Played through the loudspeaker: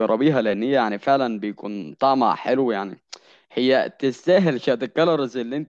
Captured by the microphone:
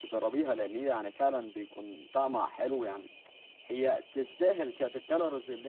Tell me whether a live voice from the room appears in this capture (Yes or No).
No